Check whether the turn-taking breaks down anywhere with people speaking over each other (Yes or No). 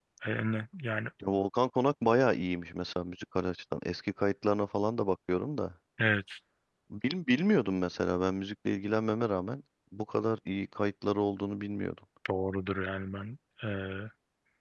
No